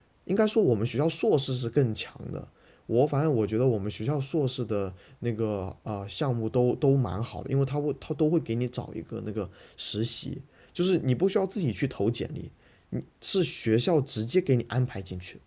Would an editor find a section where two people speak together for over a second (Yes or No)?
No